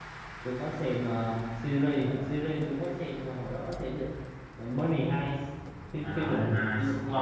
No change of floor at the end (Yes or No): No